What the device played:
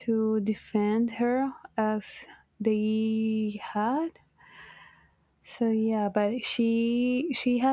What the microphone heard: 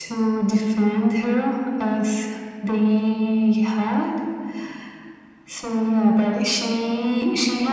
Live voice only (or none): none